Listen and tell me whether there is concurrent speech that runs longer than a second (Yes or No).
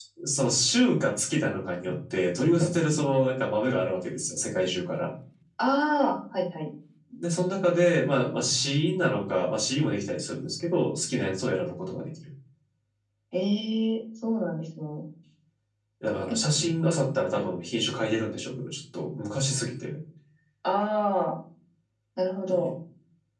No